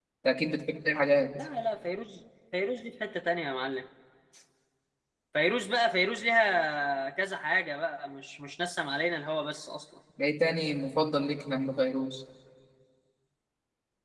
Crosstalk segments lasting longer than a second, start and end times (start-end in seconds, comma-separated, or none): none